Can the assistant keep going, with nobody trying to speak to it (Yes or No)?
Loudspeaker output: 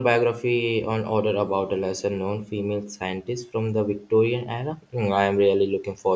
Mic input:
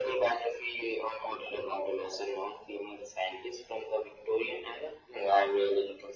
Yes